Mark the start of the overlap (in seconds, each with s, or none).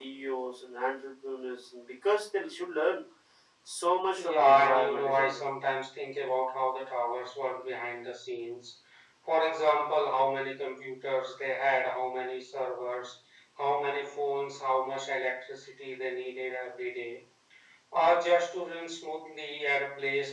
4.2 s